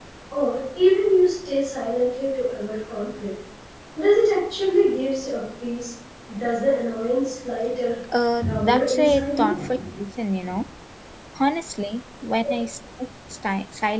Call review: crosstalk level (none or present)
present